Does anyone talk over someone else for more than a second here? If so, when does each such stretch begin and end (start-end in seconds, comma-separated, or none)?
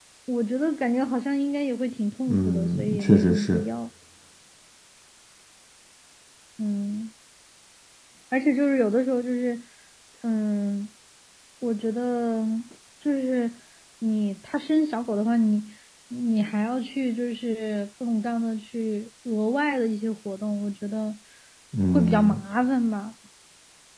2.3-3.6